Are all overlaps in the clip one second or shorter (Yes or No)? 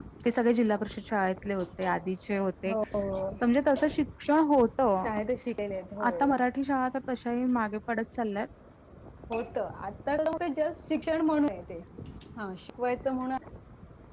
Yes